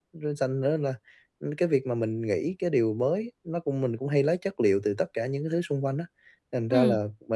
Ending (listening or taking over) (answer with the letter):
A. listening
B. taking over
A